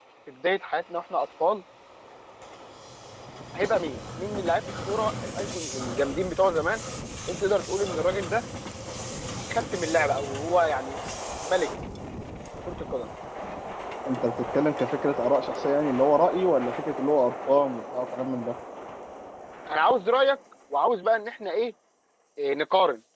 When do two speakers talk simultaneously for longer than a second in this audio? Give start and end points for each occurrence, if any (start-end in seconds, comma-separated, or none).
none